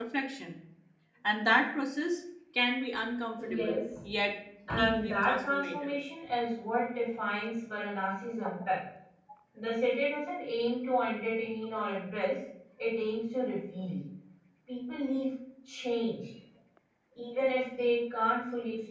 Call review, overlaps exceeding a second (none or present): present